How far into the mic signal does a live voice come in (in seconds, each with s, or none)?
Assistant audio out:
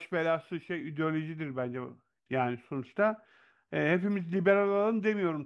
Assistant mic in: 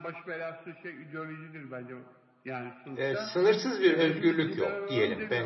2.9 s